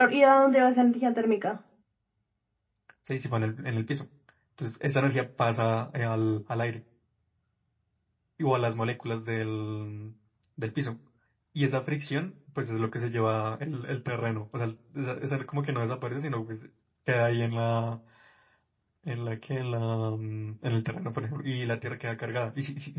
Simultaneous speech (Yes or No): No